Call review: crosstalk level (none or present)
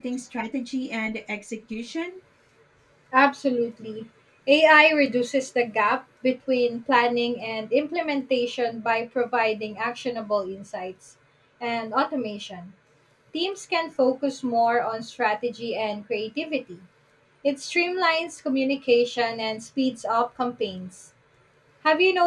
none